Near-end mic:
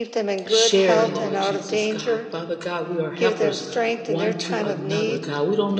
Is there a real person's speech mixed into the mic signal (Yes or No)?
Yes